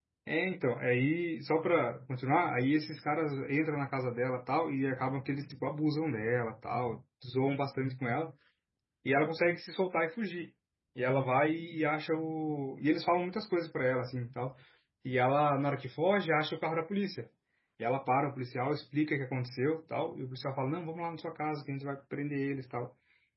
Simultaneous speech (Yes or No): No